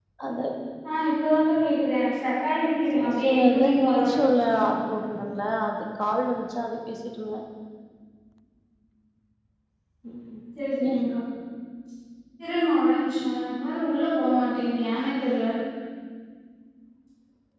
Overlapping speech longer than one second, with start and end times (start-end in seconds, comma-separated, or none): 2.9-4.1